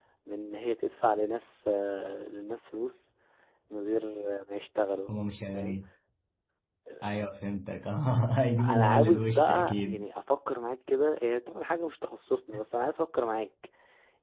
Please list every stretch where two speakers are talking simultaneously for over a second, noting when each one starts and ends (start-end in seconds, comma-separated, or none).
8.6-10.0